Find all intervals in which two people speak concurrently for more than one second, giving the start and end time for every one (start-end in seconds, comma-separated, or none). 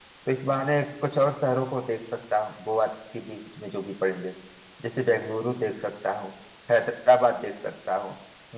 none